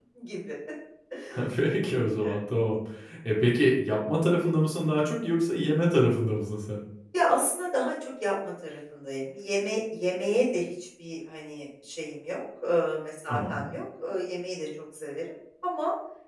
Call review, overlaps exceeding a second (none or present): none